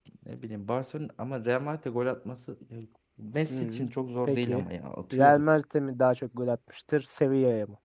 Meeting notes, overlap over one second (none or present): none